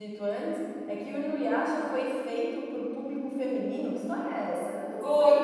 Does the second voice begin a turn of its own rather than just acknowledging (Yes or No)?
Yes